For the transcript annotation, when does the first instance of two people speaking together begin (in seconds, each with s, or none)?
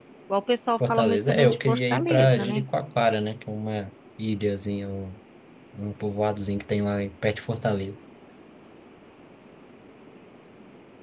0.9 s